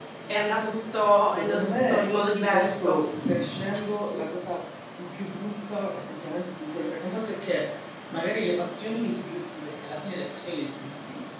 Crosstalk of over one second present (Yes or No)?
Yes